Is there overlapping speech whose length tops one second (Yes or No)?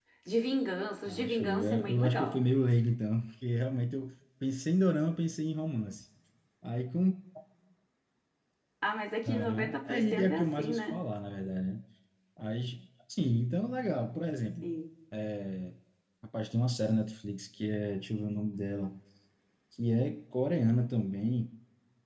Yes